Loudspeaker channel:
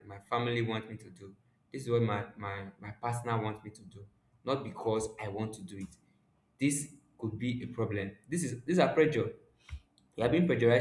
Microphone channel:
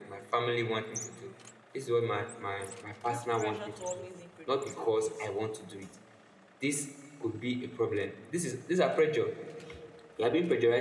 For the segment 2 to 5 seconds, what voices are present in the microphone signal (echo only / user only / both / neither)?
both